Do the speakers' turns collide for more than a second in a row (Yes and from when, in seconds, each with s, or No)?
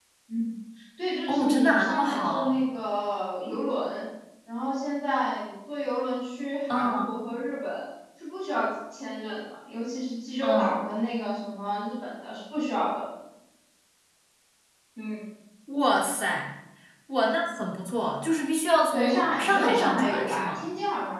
Yes, from 1.3 s